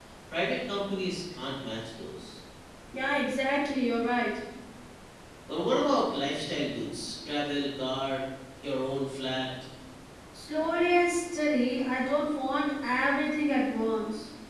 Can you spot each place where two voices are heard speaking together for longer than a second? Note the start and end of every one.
none

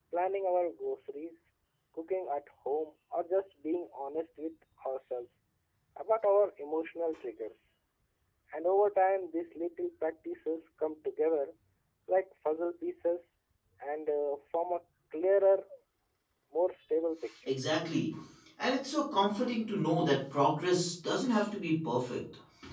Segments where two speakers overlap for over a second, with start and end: none

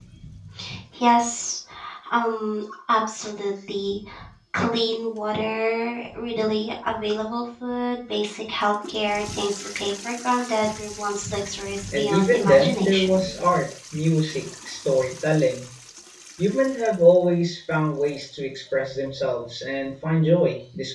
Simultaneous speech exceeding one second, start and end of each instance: 11.9-13.3

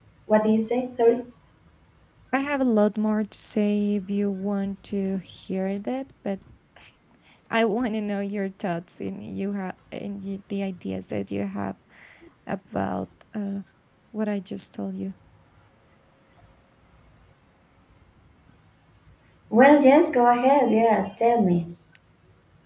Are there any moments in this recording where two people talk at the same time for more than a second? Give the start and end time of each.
none

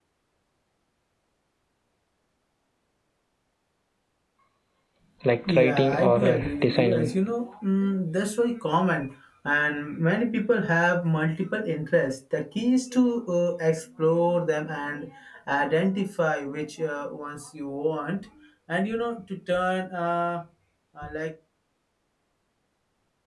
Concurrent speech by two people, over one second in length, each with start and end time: 5.5-7.1

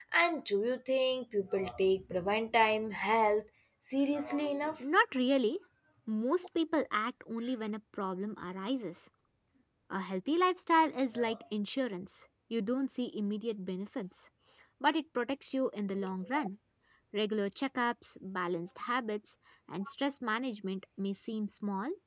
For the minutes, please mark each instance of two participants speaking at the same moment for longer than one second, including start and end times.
none

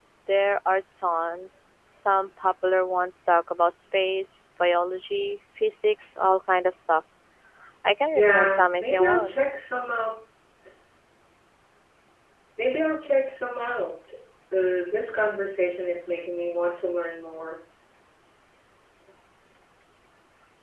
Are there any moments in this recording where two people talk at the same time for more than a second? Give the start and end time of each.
8.1-9.3

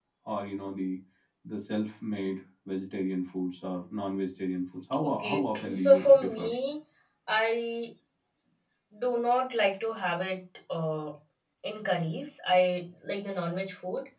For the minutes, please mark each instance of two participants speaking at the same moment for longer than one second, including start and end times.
5.0-6.5

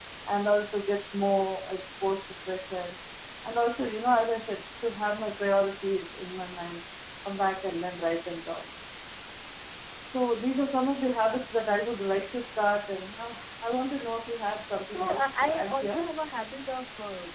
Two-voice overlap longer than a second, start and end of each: 14.8-16.1

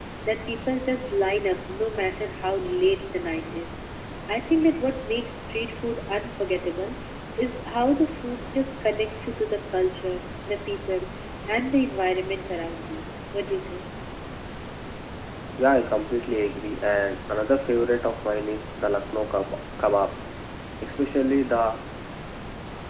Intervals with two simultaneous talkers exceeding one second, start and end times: none

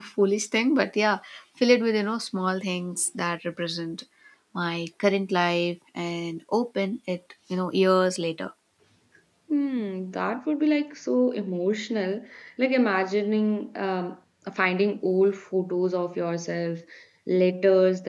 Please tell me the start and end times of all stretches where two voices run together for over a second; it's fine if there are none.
none

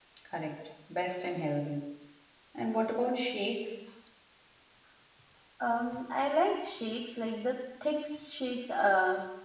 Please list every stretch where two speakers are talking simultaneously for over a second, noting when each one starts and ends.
none

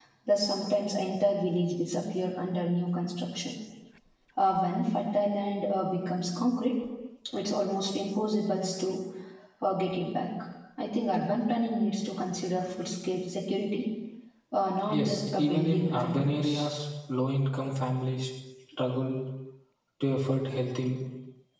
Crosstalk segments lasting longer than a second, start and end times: 14.9-16.7

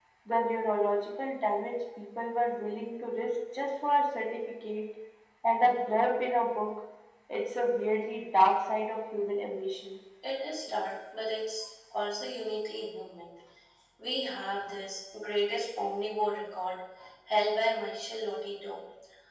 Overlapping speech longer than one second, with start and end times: none

